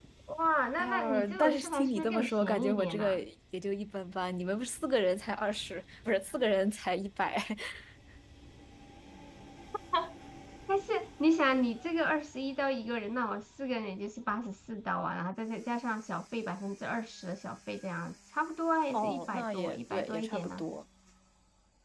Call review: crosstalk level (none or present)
present